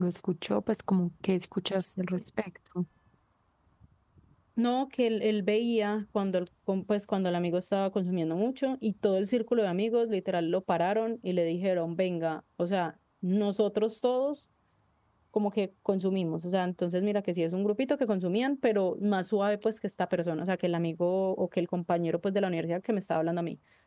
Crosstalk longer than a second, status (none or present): none